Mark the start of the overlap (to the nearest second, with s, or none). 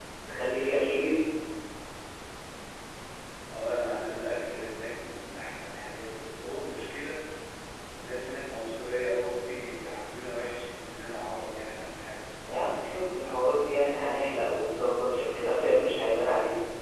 none